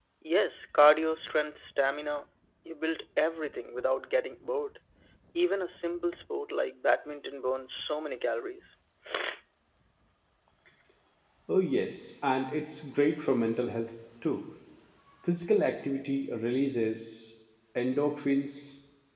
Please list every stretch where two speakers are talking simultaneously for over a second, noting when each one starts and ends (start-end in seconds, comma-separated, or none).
none